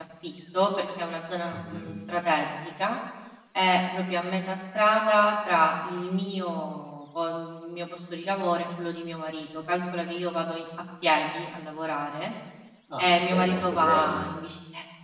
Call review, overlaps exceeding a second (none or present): present